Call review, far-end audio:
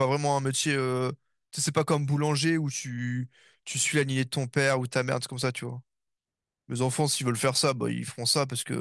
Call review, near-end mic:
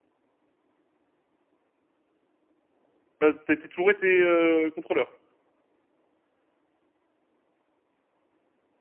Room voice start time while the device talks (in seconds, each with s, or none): 3.2 s